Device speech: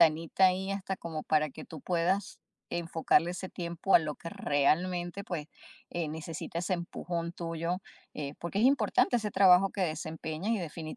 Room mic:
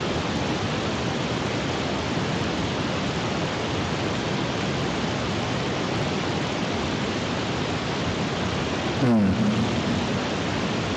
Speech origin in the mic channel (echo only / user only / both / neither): user only